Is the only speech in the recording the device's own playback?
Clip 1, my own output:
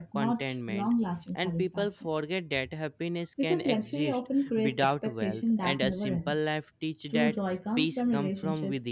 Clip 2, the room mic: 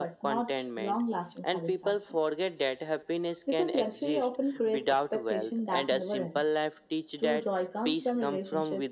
Yes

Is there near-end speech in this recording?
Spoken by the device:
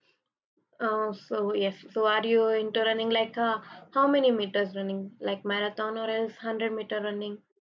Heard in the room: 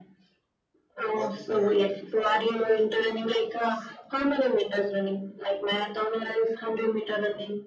Yes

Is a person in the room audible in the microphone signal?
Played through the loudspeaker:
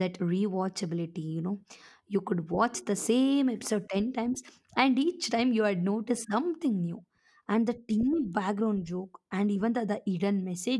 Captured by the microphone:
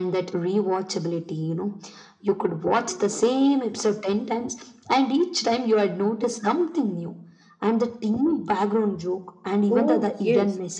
Yes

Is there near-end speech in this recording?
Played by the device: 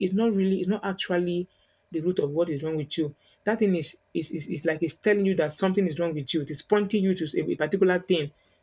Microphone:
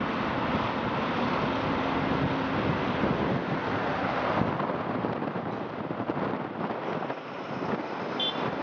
No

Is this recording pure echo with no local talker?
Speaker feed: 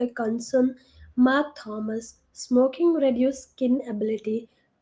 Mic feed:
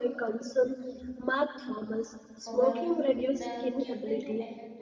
No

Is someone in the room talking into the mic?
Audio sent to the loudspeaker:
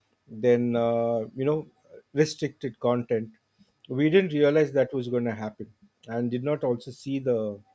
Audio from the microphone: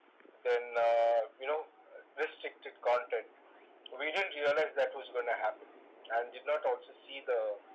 No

